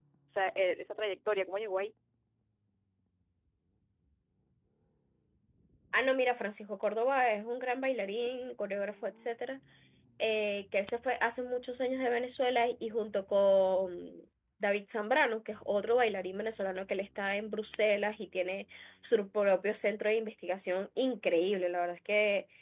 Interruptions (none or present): none